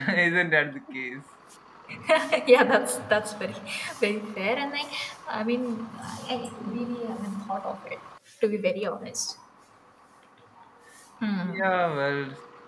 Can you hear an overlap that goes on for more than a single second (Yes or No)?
No